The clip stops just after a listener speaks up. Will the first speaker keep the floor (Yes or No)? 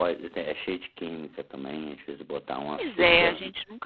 No